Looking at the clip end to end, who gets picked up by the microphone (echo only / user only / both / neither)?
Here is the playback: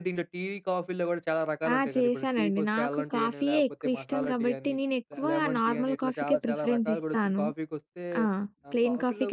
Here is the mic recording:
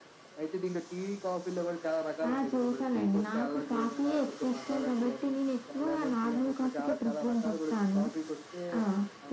echo only